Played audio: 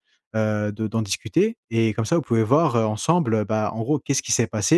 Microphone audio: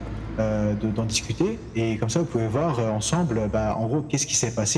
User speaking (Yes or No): No